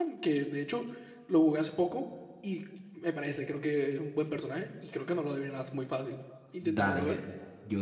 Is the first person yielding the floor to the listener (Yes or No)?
Yes